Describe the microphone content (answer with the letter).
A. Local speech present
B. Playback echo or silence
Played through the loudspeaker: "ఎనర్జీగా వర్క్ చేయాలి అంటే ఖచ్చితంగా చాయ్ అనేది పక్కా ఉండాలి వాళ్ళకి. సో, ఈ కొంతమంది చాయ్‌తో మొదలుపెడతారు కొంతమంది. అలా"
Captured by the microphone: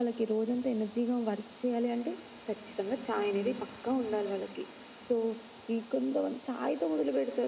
B